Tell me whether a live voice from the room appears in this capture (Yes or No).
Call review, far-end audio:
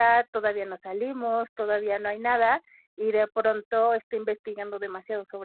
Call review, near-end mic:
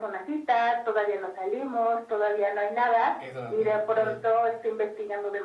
Yes